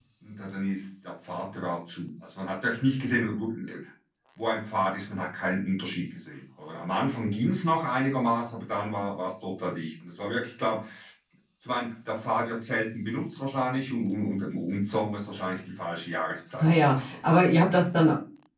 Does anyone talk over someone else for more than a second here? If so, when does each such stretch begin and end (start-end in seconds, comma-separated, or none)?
16.6-17.8